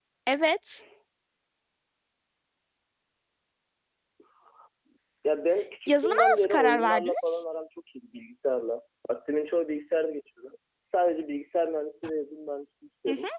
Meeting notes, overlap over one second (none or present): present